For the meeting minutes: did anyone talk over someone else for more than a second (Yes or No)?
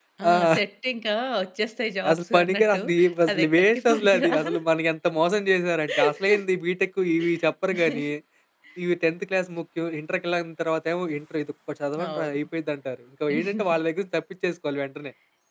Yes